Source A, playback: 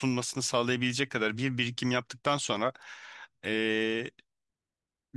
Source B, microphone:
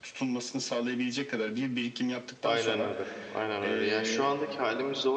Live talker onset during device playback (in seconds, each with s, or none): 2.4 s